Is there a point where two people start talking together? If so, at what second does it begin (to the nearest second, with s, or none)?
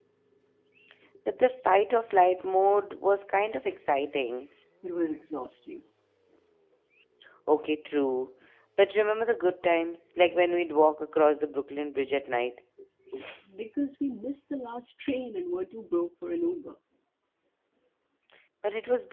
none